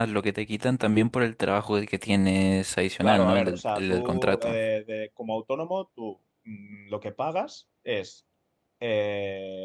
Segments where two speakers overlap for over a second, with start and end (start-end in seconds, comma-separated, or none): 3.0-4.5